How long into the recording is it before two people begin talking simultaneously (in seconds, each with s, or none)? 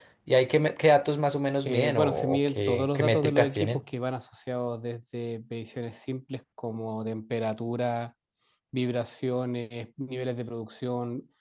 1.6 s